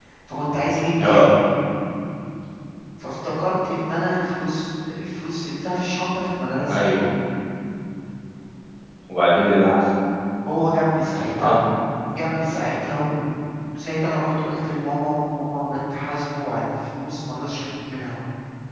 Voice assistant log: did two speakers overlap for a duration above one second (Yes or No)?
No